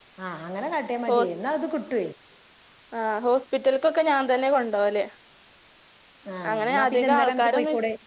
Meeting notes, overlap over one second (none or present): present